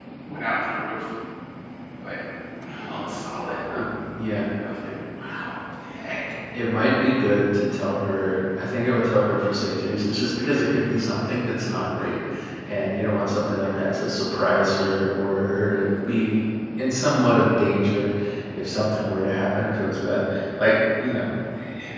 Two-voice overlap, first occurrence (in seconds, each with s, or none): none